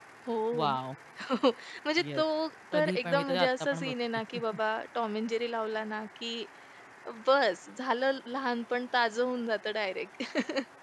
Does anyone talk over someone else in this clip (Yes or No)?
Yes